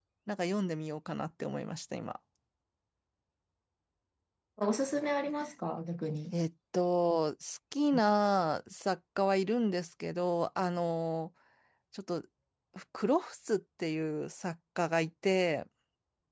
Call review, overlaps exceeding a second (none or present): none